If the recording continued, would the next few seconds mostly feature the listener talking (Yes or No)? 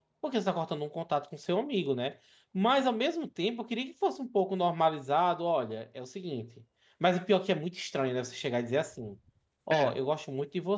No